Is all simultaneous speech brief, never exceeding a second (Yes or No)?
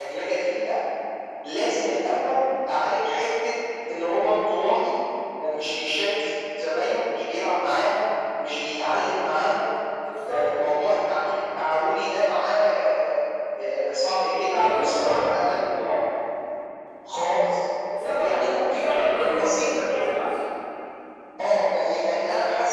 No